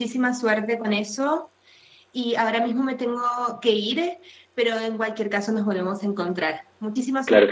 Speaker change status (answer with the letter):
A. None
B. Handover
B